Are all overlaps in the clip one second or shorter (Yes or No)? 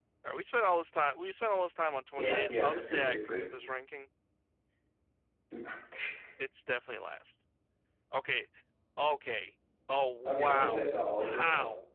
No